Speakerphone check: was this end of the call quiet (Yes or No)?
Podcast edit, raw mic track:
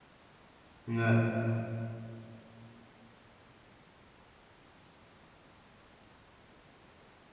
No